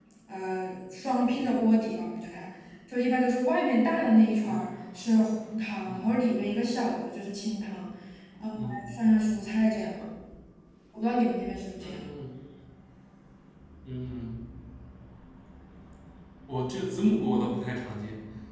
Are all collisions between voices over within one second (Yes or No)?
Yes